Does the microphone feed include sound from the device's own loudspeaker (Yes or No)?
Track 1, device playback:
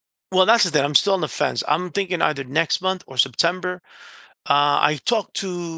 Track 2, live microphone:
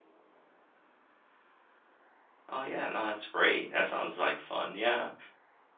No